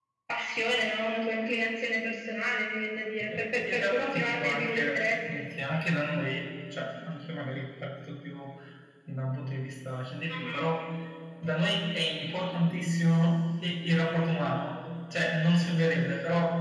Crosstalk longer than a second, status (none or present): present